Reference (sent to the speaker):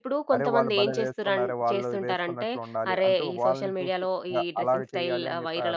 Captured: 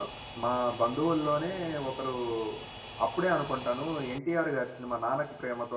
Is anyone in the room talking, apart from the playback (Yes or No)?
Yes